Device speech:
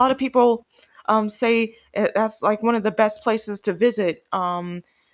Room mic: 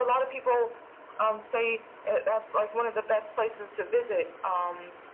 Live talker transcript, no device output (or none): none